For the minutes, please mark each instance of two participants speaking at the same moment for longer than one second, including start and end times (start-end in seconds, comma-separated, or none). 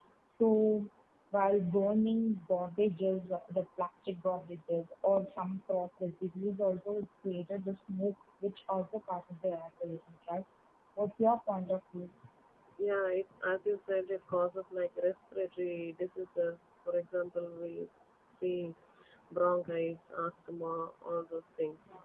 none